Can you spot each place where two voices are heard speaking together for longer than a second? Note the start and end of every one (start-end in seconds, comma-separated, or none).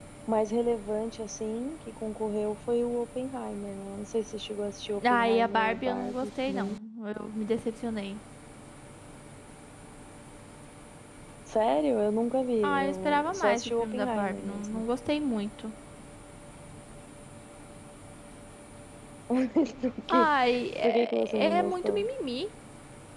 5.1-6.7, 12.6-14.8, 20.8-22.1